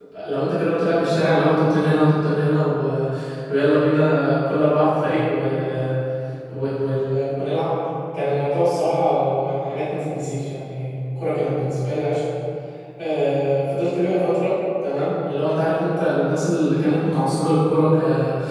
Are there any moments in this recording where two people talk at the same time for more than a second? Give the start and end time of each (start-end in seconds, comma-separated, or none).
none